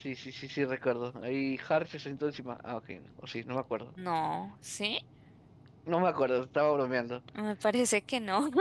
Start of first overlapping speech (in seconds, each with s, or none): none